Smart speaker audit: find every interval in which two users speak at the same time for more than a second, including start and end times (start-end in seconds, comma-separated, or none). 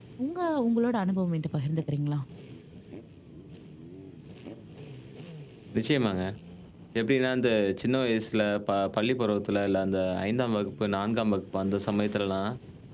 none